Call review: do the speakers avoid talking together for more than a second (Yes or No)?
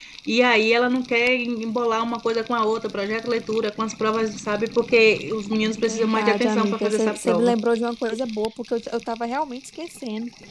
No